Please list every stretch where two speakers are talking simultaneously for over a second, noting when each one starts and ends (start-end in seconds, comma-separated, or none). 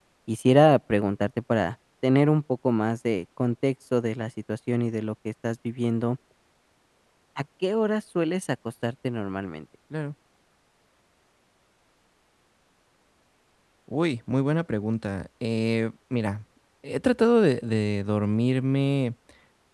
none